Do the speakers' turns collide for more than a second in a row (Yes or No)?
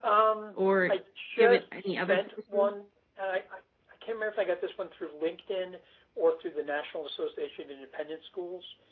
Yes